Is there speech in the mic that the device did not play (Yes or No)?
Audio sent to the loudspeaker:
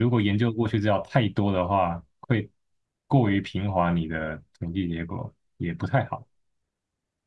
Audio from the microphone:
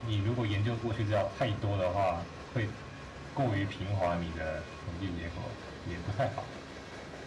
No